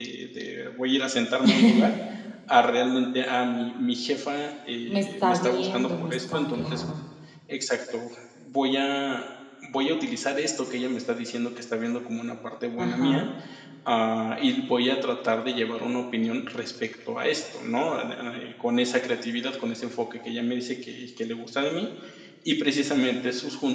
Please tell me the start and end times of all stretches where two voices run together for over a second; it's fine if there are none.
4.9-6.8

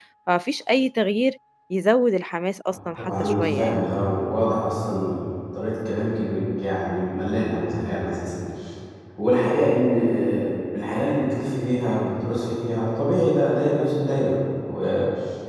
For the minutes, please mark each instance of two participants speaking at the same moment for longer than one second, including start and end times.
2.7-3.9

